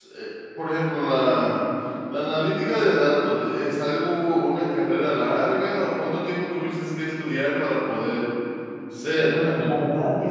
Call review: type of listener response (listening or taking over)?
taking over